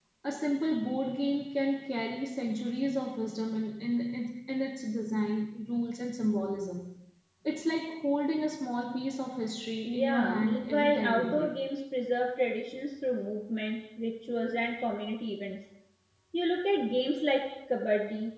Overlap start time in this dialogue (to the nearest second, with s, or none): 10 s